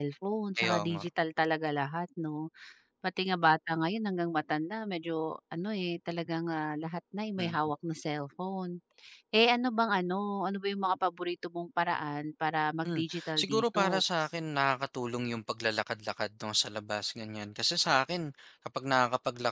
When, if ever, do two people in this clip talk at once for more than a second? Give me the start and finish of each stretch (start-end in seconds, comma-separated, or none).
12.8-14.2